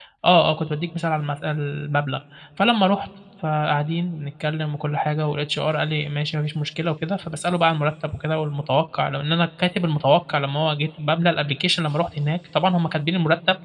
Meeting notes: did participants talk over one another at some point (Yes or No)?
No